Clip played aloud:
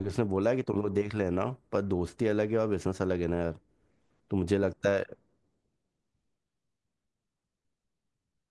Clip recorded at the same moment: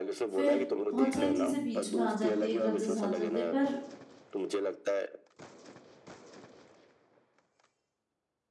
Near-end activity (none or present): present